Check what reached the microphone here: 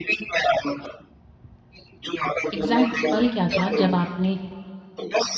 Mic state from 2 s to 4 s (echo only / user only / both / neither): both